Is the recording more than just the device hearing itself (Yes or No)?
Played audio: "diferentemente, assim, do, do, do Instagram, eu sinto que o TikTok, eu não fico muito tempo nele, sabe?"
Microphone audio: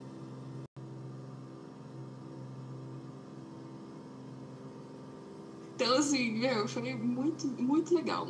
Yes